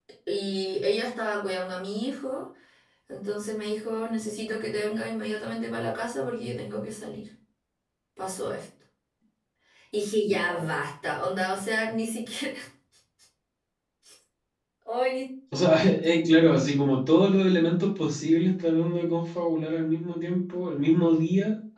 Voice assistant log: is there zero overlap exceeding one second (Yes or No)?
Yes